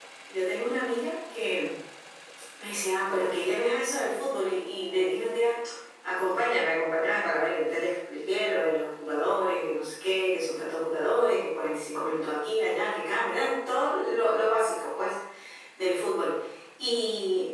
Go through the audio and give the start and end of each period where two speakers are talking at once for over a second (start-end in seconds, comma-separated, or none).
none